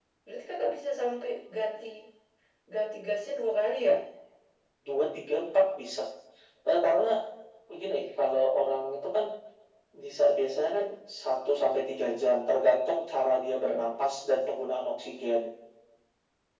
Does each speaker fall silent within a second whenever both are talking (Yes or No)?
Yes